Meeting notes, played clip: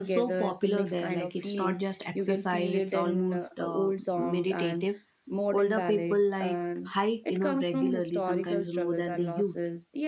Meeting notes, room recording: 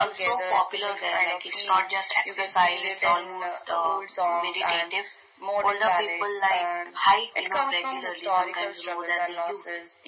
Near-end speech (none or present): none